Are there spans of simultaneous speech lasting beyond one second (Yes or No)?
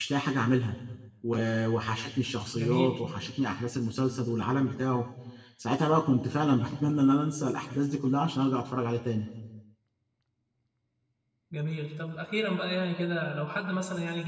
No